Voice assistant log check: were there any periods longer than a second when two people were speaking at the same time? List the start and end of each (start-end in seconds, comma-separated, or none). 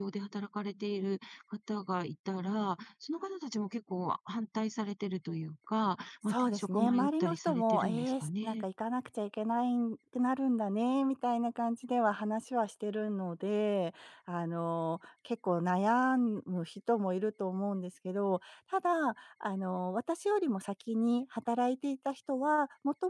6.3-8.6